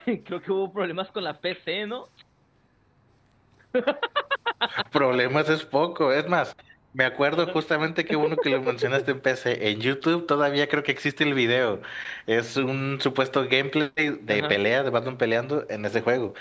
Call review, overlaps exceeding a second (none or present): none